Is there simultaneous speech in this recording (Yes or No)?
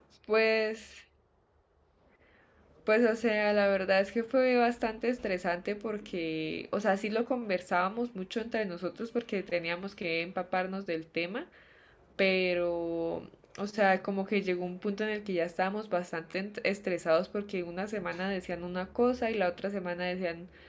No